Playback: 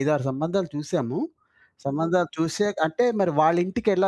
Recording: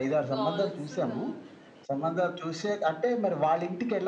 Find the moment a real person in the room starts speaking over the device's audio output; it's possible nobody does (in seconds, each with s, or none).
0.3 s